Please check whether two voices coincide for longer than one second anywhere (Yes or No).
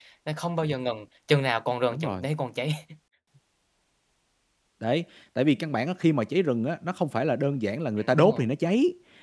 No